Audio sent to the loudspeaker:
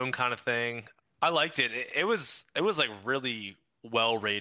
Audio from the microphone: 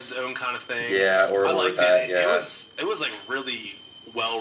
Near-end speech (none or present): present